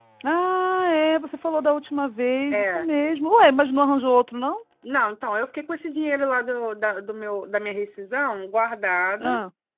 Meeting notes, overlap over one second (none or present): none